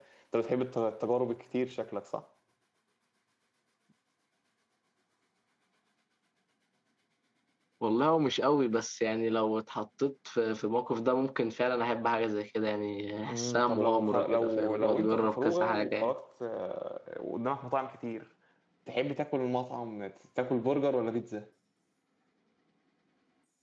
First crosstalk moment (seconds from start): 13 s

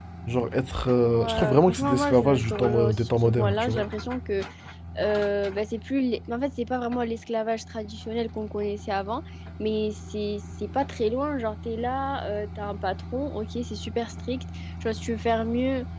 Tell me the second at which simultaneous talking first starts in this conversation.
1 s

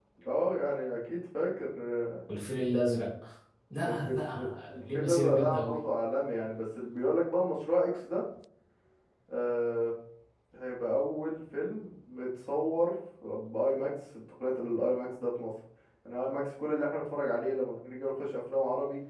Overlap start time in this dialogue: 4 s

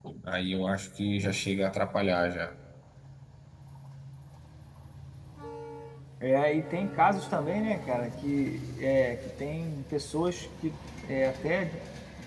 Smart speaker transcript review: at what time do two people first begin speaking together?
none

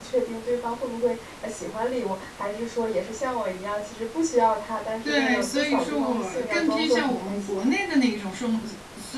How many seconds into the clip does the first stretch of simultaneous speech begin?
5 s

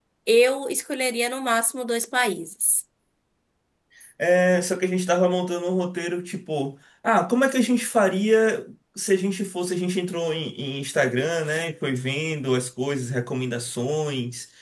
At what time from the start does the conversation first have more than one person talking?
none

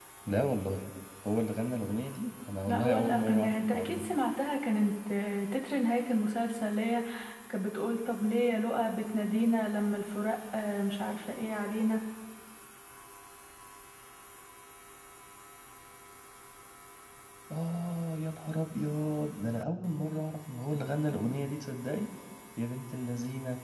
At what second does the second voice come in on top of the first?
3 s

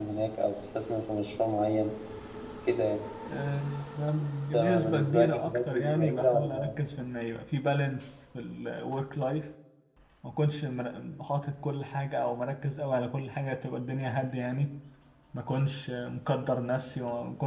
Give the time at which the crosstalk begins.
5 s

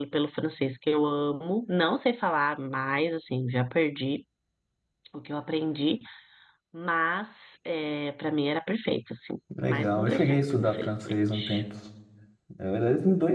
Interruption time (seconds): 10 s

